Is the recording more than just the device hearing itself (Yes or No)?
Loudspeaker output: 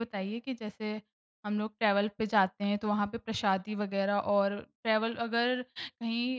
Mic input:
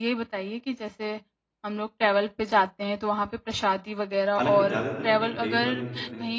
Yes